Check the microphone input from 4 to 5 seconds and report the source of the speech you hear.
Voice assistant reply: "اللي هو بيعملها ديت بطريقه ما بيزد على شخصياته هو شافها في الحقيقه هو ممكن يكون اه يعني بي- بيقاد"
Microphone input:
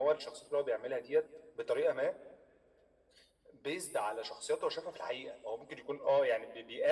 echo only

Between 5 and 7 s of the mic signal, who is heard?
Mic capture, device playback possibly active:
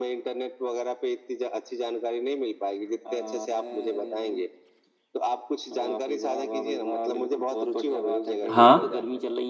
echo only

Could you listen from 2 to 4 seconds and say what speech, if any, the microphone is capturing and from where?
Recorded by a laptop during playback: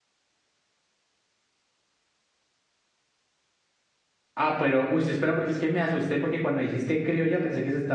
neither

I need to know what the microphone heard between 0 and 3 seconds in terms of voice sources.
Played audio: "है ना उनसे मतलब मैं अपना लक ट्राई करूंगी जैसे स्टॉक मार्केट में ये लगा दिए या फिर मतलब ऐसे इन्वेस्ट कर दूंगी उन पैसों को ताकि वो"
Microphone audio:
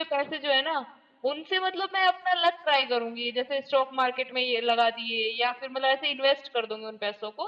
echo only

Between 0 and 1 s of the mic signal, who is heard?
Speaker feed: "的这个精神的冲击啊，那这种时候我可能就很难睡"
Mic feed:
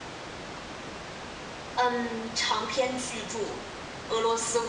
neither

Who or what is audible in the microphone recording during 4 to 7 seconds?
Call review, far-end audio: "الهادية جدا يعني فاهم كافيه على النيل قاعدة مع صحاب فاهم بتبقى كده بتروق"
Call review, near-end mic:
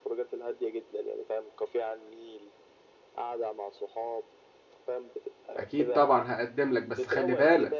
both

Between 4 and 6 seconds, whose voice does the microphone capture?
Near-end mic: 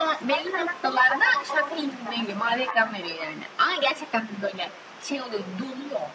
echo only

